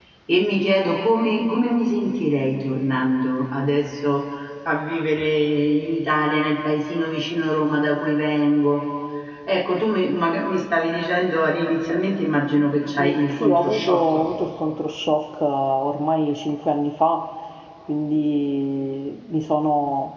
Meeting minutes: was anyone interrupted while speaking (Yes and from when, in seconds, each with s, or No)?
Yes, from 13.0 s